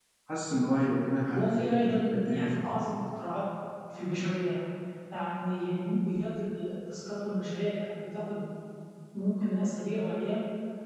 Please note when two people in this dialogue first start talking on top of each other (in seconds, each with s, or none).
1.3 s